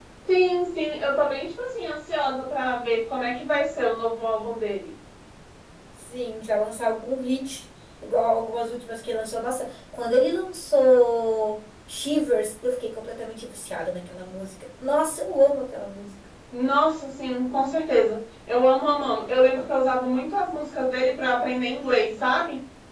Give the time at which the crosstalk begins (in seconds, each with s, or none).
none